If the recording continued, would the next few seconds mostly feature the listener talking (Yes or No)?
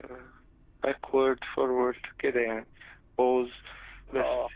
No